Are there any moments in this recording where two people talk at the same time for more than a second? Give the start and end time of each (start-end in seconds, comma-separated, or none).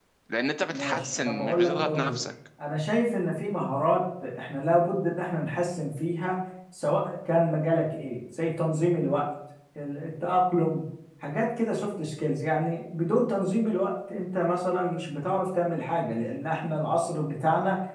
0.7-2.2